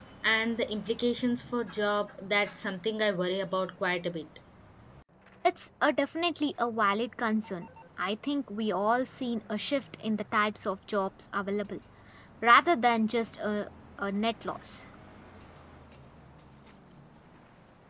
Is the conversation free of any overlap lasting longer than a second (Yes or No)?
Yes